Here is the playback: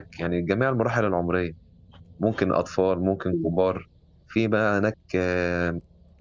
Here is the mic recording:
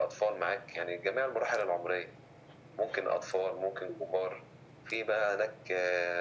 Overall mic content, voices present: echo only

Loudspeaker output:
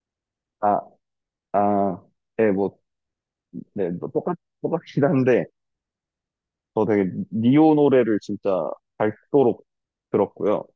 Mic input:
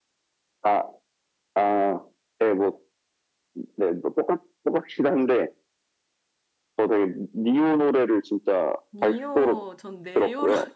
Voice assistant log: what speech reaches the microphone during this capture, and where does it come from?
both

